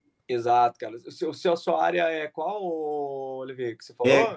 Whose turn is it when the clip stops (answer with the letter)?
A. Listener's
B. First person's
A